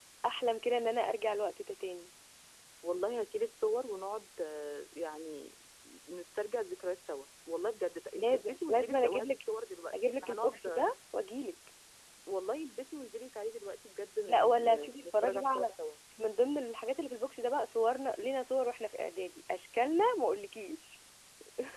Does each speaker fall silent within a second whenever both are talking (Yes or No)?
No